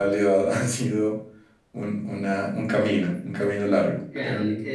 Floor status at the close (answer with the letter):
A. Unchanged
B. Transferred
B